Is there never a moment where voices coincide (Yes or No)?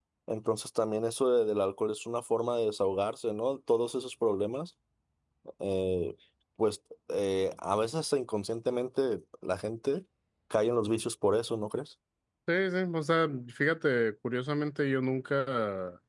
Yes